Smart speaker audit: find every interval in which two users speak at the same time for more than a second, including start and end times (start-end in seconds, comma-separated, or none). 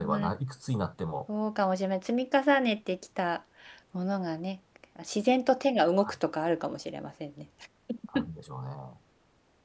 none